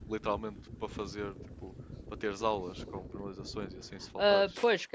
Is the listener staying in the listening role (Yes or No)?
No